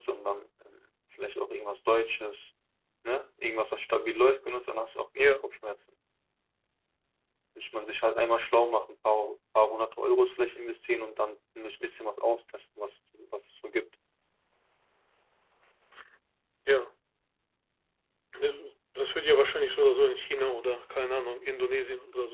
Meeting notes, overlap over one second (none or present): none